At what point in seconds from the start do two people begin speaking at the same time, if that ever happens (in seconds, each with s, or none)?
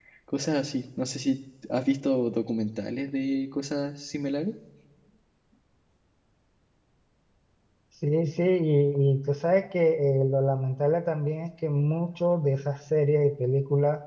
none